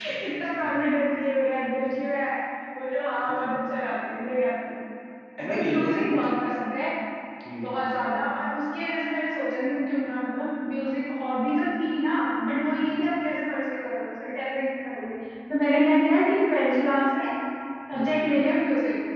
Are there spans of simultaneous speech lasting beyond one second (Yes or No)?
No